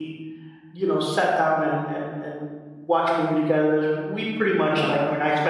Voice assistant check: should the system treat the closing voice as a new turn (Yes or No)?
No